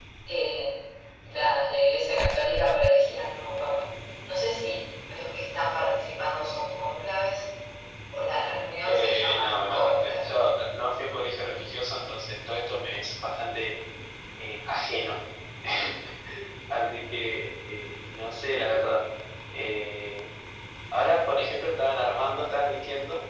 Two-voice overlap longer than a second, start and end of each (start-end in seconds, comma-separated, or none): 8.8-10.3